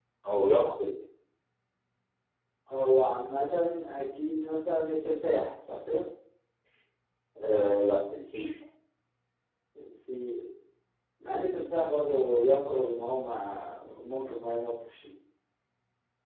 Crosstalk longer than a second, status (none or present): none